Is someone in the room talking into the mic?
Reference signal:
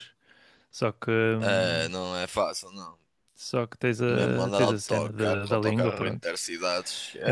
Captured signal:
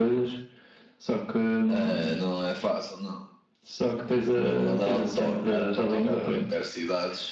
No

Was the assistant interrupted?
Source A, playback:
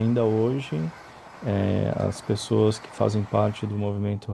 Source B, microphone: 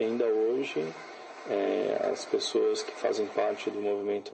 No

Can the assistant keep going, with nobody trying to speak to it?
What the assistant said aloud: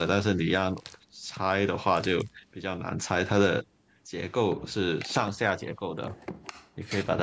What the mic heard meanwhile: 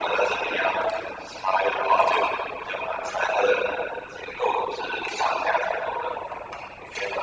Yes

